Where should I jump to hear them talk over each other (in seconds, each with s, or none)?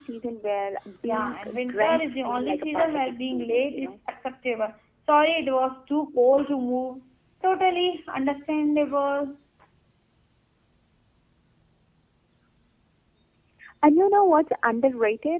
1.1 s